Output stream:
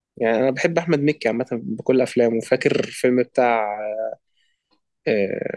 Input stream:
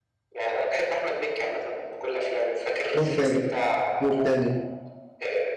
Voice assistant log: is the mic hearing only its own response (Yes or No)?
No